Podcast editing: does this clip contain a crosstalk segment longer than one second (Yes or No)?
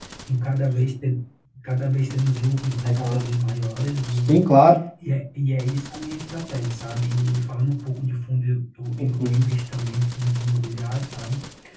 No